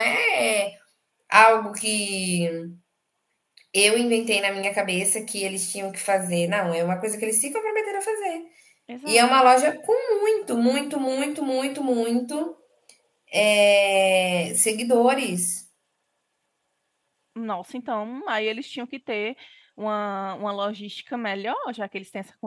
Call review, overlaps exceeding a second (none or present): none